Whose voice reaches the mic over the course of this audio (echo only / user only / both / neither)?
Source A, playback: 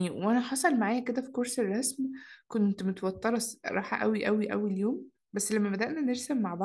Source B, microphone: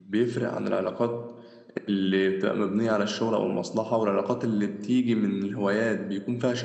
user only